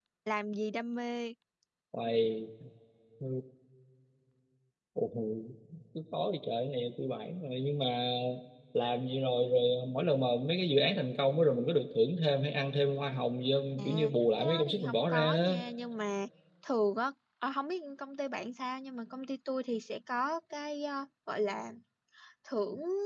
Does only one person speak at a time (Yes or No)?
No